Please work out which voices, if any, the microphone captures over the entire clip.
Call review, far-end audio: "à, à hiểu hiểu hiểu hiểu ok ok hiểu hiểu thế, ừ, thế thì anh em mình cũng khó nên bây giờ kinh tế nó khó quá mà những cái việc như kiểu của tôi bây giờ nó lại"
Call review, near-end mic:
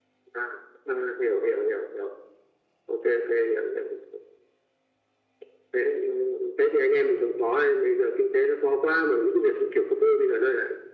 echo only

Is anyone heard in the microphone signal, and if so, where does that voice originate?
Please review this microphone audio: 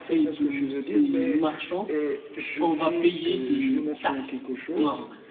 both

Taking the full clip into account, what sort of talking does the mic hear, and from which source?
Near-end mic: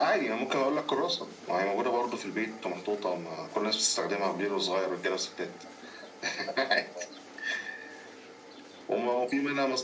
echo only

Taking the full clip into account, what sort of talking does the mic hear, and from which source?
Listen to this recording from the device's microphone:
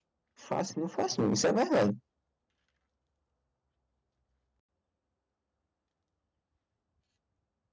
user only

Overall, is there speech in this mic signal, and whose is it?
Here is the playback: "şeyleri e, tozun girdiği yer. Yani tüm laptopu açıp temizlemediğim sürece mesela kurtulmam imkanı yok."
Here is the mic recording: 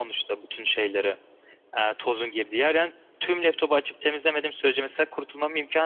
echo only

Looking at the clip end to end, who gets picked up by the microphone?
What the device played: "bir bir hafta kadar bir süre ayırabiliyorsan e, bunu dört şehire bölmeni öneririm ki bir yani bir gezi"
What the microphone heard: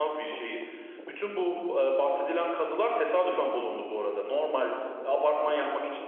user only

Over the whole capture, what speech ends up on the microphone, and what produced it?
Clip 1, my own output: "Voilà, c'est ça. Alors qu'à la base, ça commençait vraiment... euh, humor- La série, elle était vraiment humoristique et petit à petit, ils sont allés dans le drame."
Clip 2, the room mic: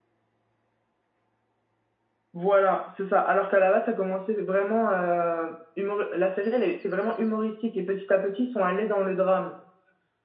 echo only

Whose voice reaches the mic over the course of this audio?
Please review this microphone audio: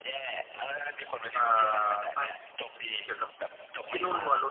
both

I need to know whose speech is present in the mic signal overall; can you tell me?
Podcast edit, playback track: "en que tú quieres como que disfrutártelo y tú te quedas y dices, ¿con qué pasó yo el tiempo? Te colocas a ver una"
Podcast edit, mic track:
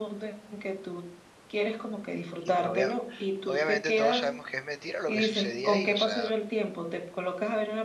both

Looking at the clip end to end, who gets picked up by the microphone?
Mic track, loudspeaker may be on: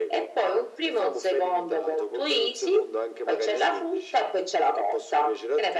echo only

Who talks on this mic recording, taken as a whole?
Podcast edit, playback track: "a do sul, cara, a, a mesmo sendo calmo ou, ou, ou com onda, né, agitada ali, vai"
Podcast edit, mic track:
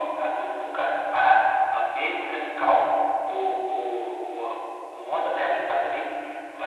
echo only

